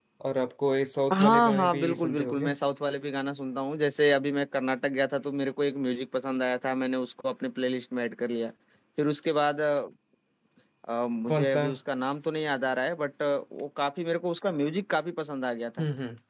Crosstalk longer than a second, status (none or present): present